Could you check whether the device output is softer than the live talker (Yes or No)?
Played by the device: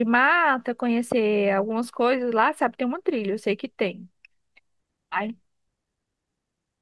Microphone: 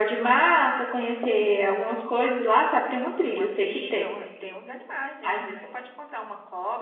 No